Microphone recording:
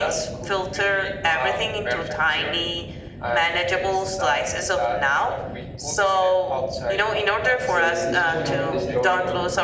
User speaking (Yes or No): Yes